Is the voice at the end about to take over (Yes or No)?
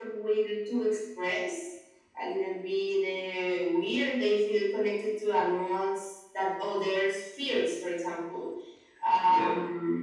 No